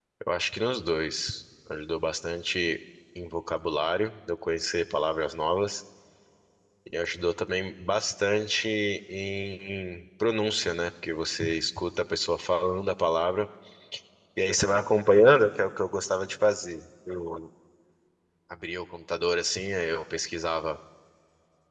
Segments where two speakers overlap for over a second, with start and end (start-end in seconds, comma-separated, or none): none